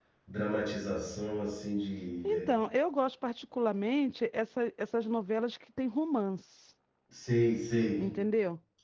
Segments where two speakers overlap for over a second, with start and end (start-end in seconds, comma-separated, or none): none